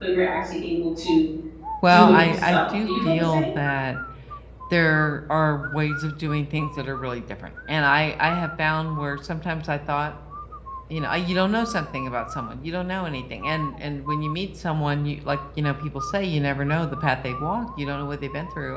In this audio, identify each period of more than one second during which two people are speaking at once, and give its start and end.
1.9-3.5

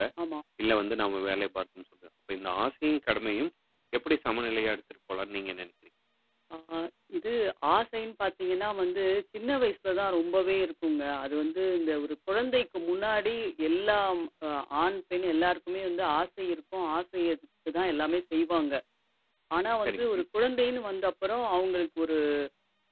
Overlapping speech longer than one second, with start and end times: none

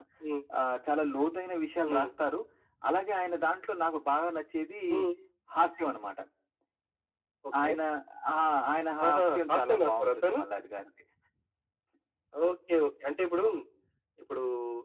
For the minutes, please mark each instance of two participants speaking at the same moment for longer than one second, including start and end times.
9.1-10.4

